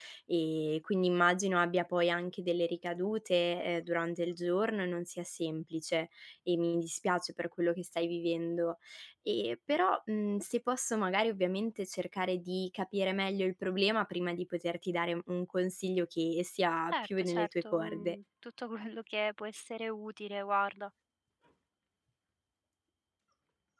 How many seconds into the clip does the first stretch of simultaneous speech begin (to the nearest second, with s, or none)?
17 s